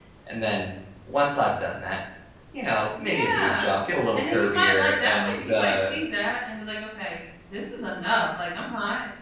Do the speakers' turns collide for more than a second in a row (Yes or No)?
Yes